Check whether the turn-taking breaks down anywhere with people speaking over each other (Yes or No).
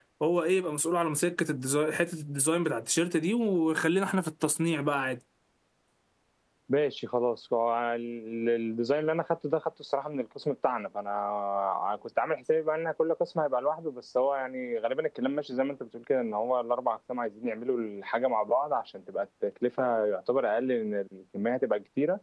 No